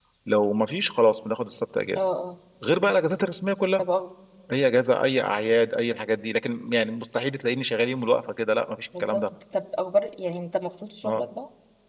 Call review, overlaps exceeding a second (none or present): none